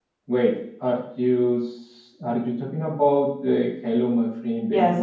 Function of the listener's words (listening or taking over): taking over